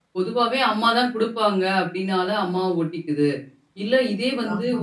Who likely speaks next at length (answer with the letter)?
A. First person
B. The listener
A